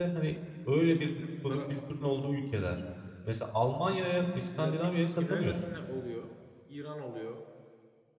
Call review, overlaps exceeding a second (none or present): present